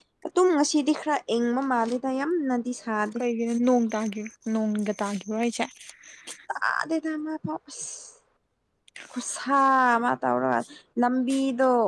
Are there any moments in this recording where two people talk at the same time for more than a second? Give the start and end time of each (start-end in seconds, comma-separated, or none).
none